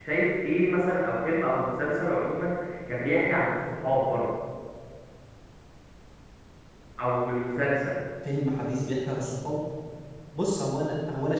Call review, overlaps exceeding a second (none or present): none